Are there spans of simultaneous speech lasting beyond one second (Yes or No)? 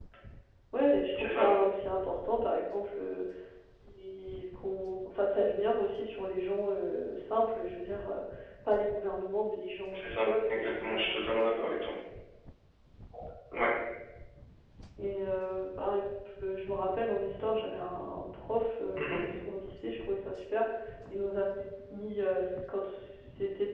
Yes